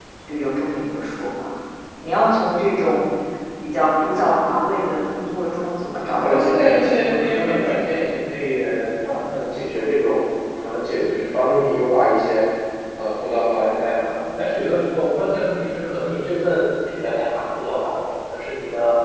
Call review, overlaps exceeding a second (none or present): present